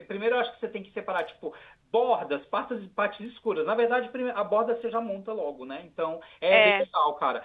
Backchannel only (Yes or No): Yes